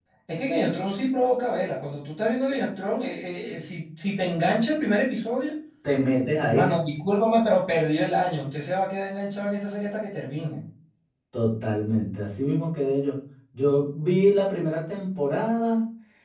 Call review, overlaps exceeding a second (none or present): none